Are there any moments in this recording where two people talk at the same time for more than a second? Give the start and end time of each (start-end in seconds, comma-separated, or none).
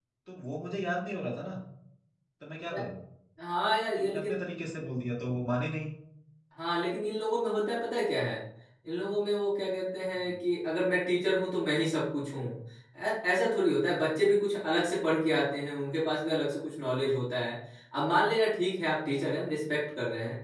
none